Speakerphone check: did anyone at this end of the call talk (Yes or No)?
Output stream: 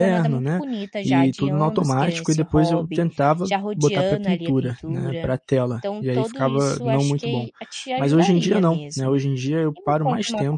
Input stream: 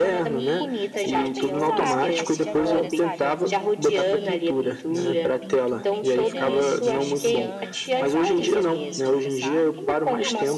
Yes